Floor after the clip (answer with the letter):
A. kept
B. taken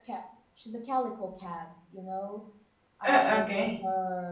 A